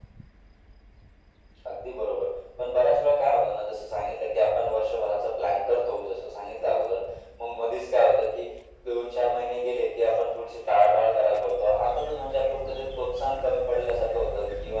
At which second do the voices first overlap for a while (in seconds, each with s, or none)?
none